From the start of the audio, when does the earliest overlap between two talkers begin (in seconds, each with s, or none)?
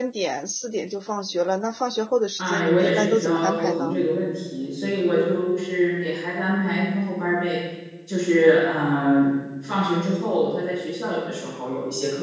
2.4 s